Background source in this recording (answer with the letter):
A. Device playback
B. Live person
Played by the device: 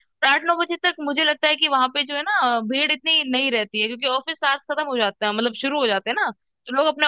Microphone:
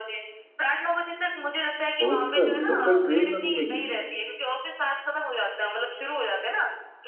A